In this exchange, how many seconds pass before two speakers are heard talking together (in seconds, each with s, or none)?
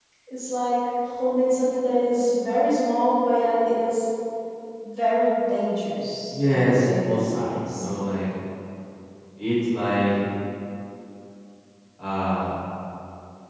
6.3 s